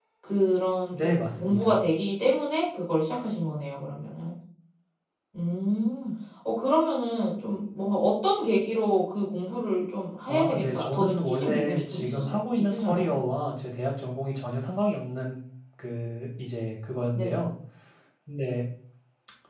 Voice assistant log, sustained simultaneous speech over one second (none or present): present